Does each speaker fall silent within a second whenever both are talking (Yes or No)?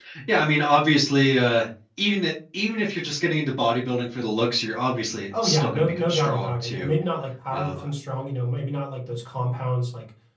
No